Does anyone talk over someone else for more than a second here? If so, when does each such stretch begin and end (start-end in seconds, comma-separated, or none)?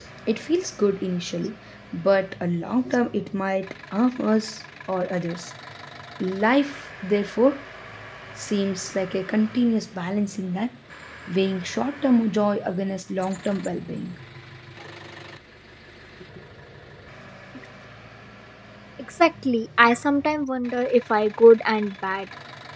none